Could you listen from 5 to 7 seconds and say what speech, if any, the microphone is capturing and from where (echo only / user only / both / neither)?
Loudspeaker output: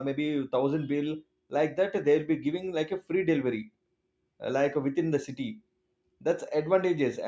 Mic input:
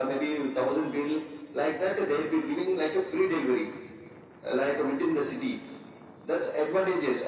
echo only